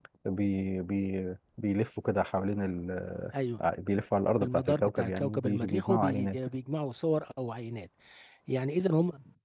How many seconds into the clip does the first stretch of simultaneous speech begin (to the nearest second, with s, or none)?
4 s